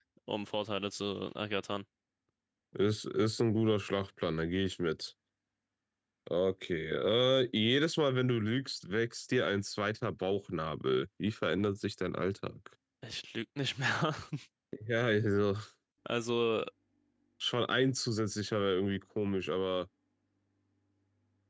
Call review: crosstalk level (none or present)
none